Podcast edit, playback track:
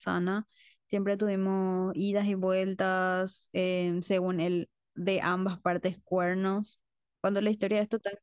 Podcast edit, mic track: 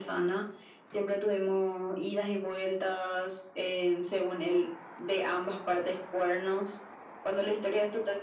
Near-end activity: none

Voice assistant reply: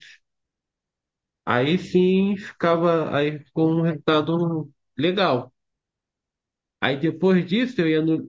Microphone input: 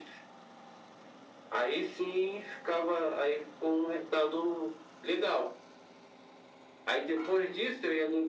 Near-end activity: none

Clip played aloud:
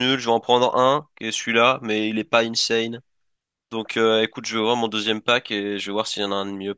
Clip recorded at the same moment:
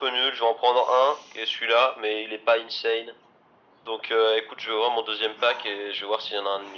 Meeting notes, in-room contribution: none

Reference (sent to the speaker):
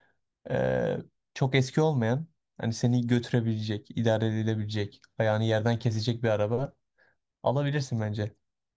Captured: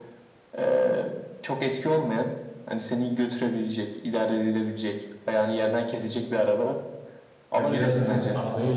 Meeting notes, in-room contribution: present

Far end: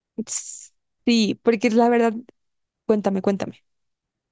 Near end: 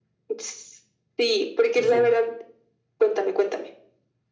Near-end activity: present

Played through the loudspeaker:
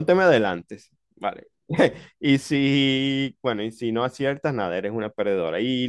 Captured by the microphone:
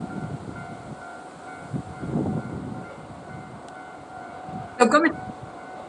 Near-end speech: present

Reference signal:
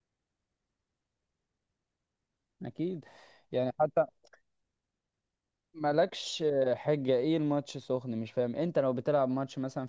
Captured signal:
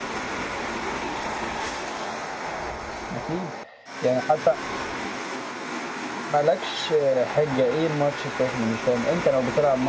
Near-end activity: none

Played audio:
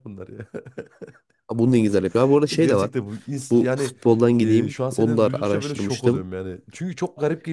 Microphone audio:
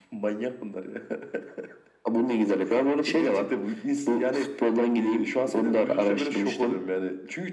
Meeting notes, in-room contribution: none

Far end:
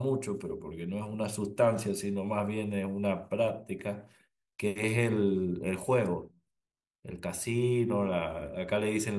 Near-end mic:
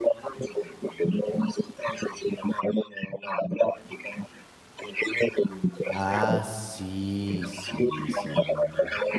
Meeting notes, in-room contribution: present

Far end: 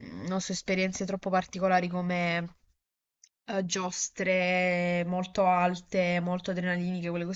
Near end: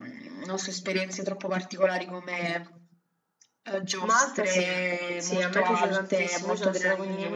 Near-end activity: present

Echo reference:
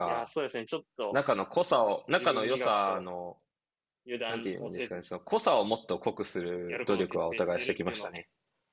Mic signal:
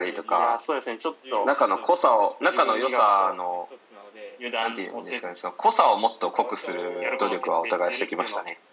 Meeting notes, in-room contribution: present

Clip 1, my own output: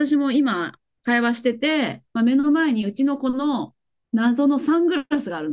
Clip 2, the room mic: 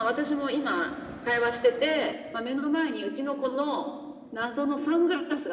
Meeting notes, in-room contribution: none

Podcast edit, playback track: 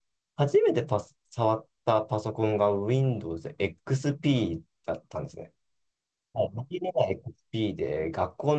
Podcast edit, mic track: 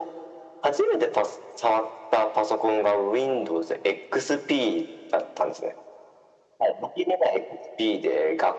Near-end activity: none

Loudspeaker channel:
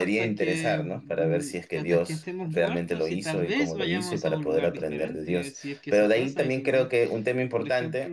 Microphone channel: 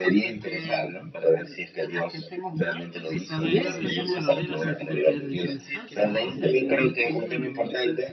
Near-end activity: present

